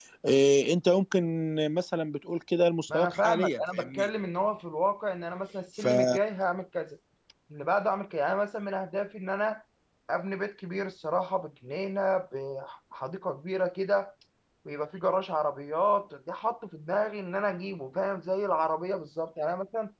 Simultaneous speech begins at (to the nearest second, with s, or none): 3 s